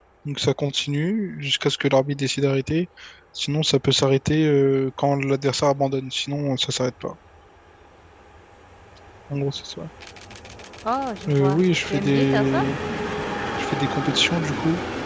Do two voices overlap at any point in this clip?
Yes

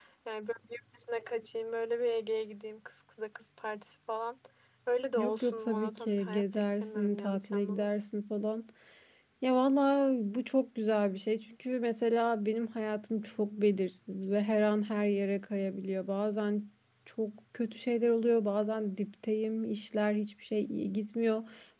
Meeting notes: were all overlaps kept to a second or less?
No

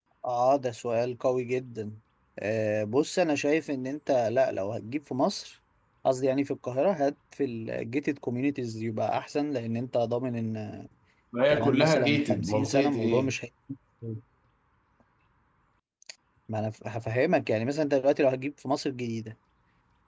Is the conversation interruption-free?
No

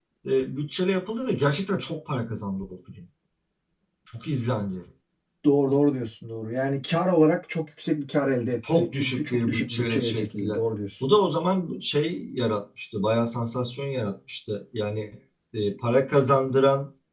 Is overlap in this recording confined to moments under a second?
No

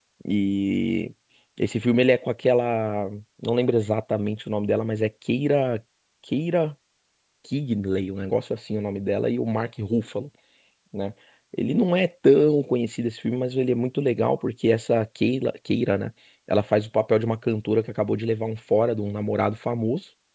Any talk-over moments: No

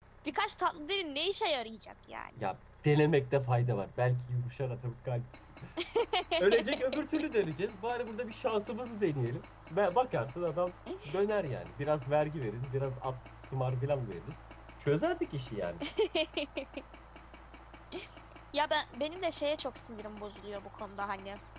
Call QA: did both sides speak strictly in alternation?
Yes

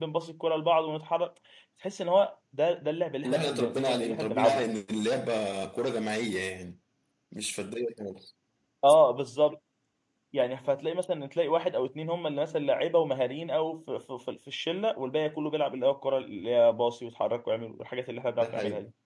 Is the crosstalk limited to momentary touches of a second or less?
No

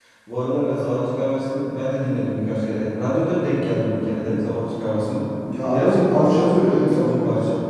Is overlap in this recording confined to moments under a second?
No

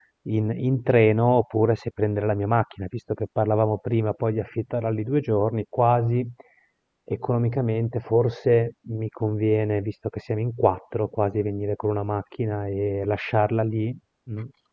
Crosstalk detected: No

